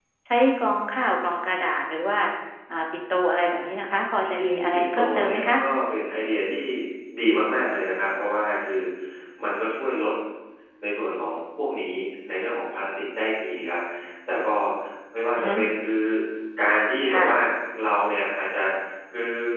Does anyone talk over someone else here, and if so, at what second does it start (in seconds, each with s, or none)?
4.2 s